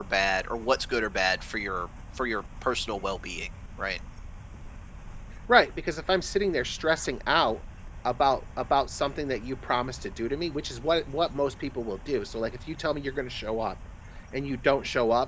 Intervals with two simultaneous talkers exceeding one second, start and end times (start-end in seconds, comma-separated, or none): none